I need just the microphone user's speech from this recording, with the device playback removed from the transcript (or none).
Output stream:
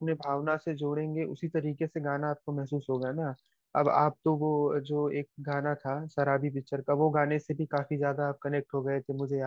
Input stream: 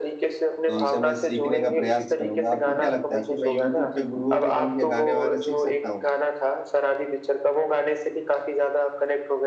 तो उनसे मैं सीखने का प्रयास करूंगा आपको क्या लगता है कि मैं यूट्यूब पे गुरुओं को ढूंढ के गाने वाने सीख सकता हूँ